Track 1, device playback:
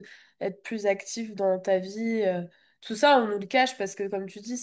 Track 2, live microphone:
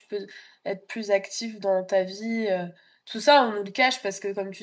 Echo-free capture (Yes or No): No